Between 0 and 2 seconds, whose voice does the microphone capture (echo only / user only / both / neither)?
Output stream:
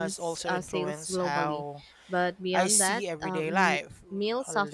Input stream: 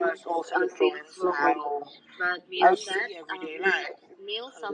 echo only